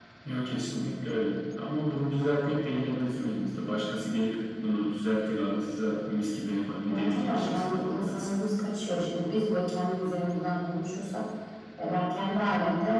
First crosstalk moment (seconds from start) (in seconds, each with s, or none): 6.9 s